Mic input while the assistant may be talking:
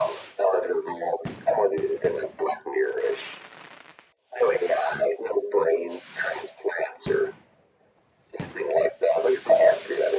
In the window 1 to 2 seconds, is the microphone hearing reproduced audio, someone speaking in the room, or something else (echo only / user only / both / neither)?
echo only